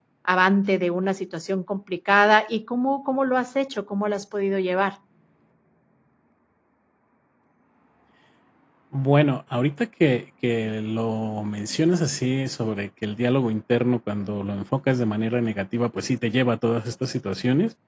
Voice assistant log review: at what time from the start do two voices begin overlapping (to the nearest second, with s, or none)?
none